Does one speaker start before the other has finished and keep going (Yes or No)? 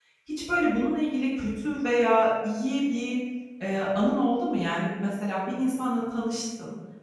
No